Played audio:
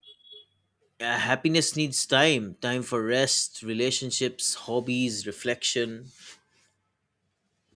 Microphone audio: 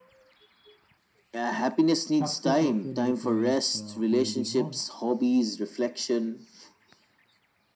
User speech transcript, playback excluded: Success often requires uh, holding on.

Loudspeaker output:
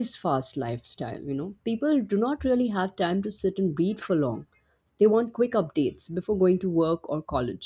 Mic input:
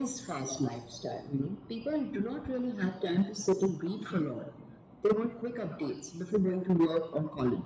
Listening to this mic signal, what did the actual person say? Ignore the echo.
none

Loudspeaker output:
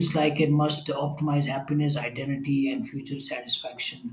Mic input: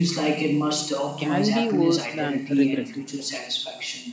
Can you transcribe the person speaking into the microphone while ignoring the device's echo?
can be worse than regret itself

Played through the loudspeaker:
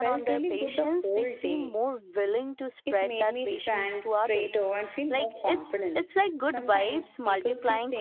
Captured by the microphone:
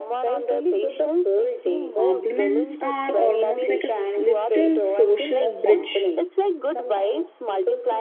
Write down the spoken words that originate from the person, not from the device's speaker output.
Compliments are almost like a s- little social bridge.

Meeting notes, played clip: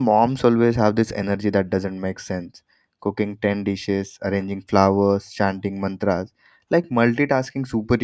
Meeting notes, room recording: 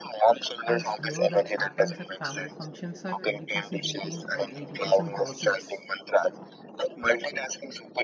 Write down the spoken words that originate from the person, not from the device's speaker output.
I swear that happens at family functions are 20% eating and 80% gossips.

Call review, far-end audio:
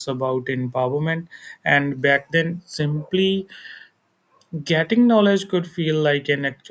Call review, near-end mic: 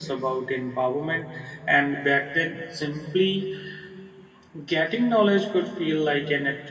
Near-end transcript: none

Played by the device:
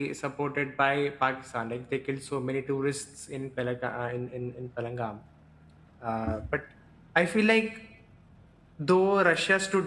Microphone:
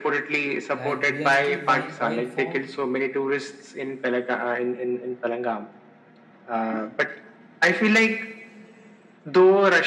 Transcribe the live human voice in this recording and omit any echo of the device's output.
like we are still buying oil from

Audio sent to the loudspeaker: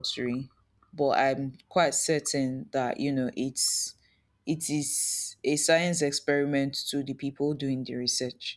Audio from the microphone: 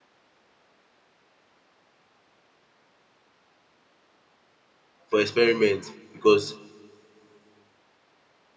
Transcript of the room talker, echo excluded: for experiment because

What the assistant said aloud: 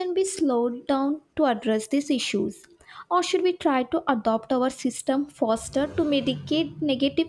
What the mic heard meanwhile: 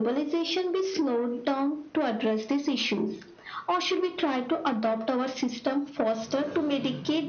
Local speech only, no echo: none

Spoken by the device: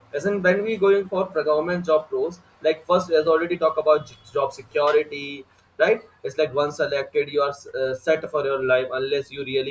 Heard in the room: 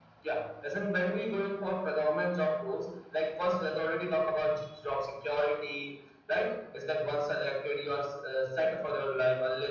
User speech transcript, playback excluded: none

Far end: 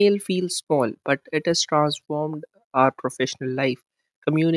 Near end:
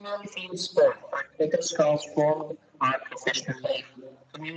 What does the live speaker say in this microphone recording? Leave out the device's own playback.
none

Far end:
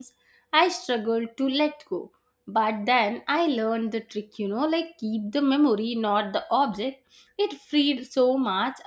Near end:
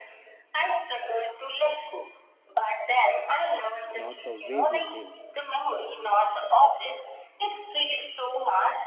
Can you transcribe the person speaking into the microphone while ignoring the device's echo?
not the way we live.

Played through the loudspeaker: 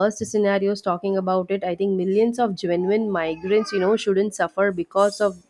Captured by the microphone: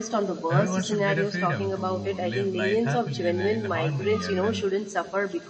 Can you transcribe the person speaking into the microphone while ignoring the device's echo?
everyone should get a freedom to live life happily and uh, in harmony and then

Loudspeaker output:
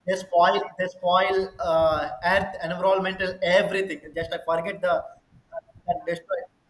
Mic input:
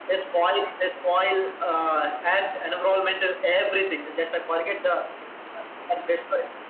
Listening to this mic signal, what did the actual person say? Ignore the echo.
none

